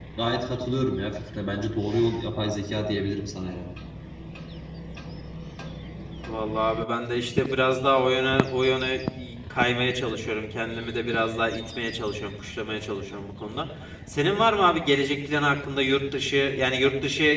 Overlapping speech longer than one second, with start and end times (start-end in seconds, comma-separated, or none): none